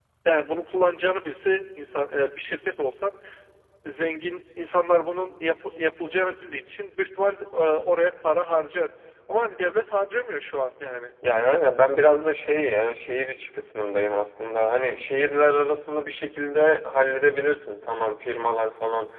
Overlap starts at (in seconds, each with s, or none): none